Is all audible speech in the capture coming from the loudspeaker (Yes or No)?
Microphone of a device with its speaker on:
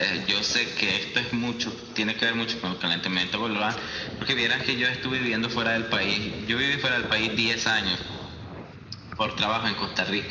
Yes